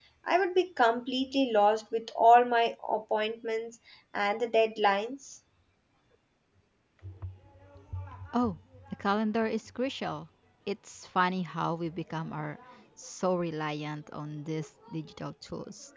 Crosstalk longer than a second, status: none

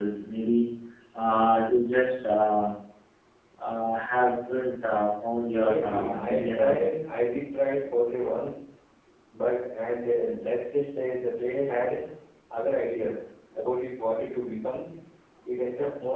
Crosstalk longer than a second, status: present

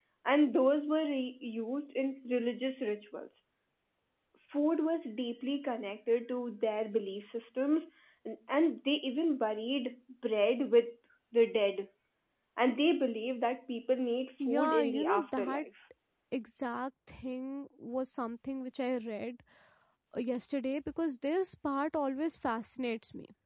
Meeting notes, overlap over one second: present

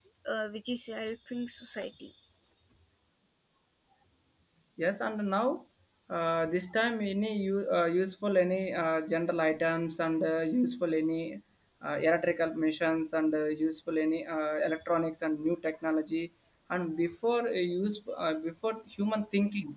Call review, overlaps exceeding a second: none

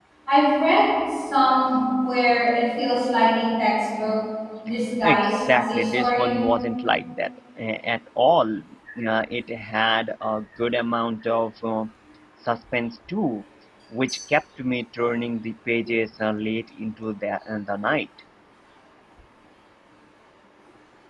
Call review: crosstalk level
present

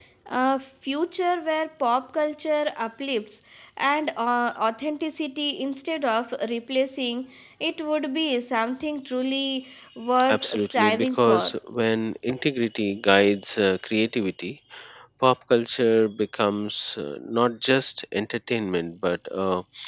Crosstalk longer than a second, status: present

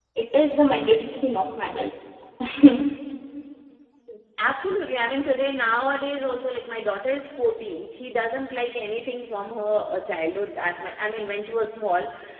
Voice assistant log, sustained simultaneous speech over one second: none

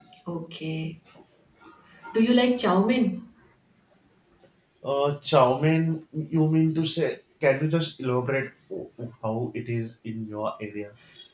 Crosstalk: none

